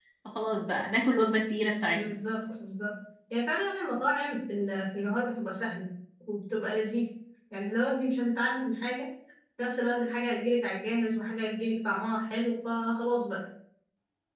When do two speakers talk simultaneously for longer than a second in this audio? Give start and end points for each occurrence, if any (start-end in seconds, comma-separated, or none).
none